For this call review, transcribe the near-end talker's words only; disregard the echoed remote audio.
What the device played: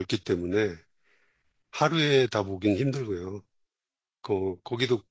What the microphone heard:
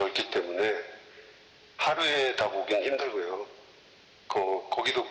none

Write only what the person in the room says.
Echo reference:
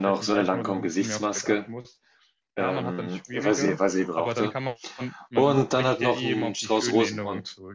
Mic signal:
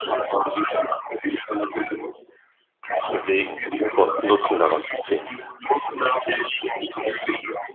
zu bewegen und Nutzen daraus zu ziehen.

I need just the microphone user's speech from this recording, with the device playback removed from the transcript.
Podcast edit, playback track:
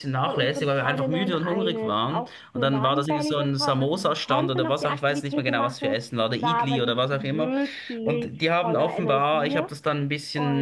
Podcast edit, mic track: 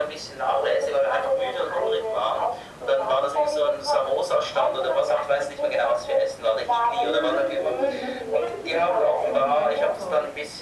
genau, das Rufen, das hattet ihr das auch in Bangkok.

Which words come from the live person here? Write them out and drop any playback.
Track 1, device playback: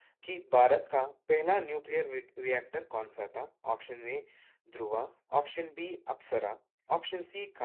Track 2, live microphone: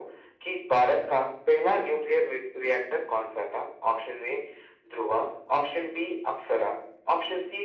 none

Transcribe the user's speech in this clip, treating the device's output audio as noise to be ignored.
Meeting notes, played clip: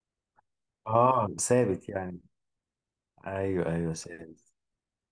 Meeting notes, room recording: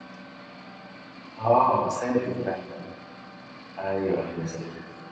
none

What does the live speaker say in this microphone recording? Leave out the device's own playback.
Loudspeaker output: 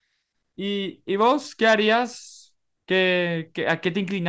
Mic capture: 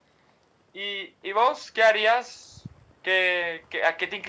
none

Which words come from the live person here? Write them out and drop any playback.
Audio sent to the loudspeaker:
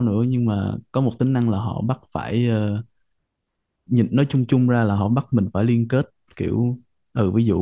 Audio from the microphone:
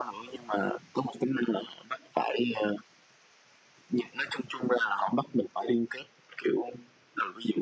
none

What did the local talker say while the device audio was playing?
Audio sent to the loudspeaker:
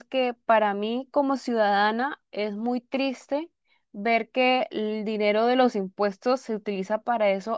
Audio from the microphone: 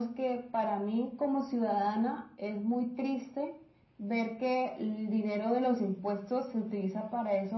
none

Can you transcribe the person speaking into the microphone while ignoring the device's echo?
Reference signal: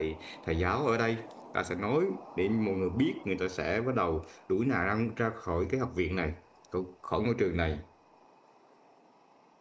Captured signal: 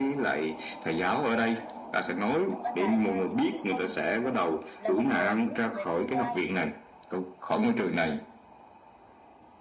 Chúc anh Đại ta dù là một con người mới, là một người hướng về tương lai,

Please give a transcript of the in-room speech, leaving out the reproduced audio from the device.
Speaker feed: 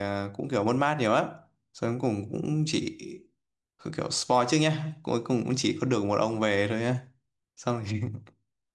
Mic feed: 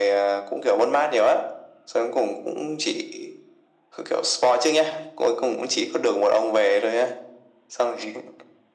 none

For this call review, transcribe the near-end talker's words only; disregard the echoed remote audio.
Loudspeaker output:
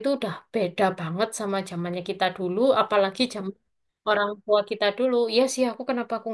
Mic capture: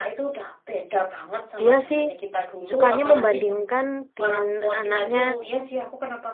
Dia sih sukanya membandingkan dengan anaknya

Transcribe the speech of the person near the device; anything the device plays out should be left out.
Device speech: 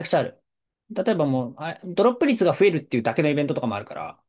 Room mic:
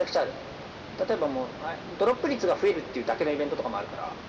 none

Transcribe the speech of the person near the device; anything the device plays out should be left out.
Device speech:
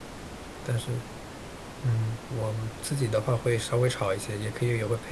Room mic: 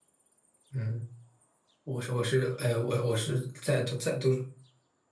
嗯。我是我是呃我我是在读在读

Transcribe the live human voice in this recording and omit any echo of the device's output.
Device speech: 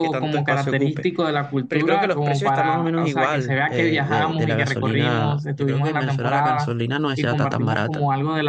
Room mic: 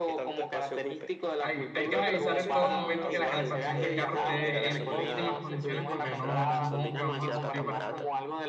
Hay, hay que revisar en todo momento que la calefacción del carro esté en óptimas condiciones porque no, supongo que vamos a sufrir bastante.

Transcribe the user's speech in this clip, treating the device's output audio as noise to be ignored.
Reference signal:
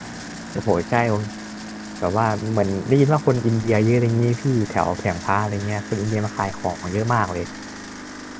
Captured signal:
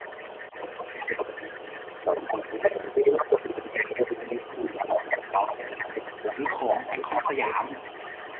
ซื้อของไอคอนสยาม

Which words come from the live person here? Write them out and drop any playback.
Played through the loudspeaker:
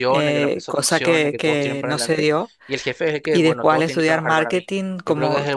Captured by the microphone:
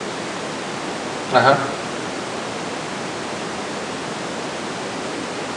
ajá.

